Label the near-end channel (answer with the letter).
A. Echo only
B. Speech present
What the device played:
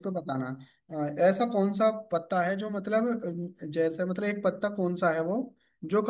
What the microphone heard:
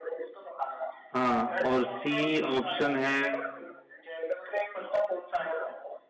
B